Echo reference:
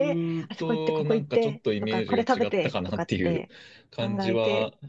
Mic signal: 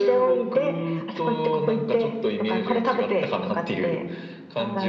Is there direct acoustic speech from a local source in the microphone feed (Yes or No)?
No